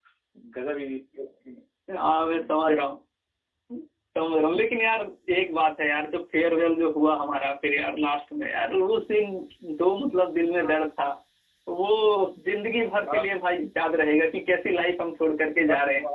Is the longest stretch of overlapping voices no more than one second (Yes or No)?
Yes